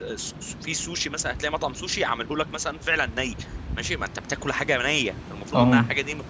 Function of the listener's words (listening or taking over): listening